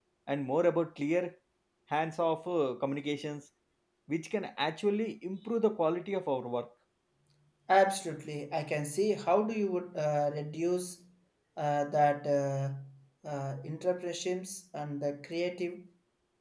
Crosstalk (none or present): none